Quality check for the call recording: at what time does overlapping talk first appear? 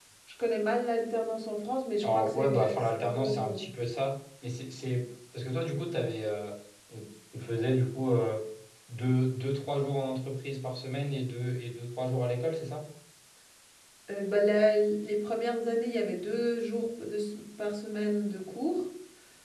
2.0 s

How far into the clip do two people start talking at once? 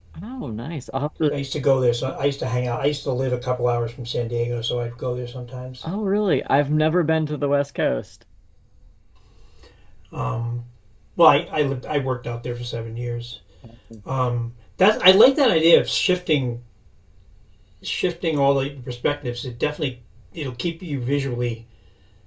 none

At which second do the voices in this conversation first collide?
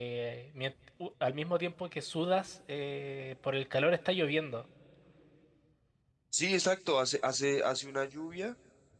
none

